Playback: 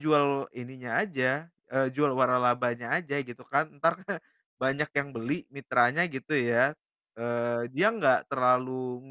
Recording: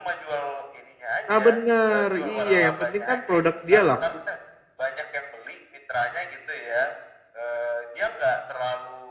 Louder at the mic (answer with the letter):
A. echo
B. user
B